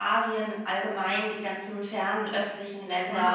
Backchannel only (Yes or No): No